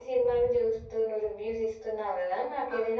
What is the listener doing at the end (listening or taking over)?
listening